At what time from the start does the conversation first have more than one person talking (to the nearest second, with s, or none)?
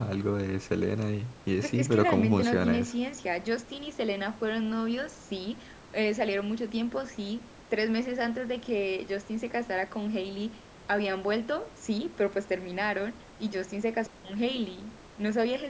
2 s